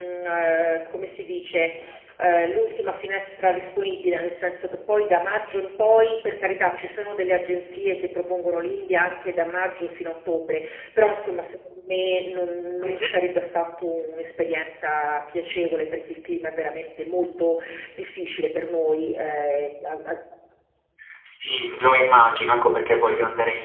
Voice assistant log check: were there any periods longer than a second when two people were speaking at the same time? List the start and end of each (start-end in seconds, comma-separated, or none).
none